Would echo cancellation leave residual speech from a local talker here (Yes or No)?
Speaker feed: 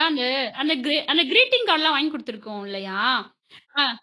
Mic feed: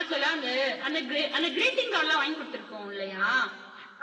No